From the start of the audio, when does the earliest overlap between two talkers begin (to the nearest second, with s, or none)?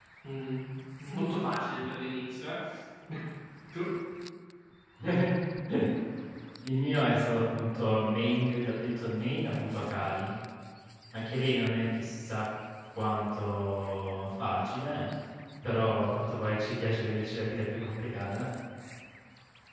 none